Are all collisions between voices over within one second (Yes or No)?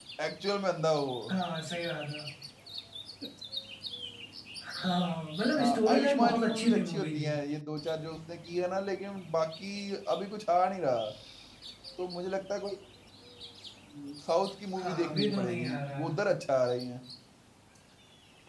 No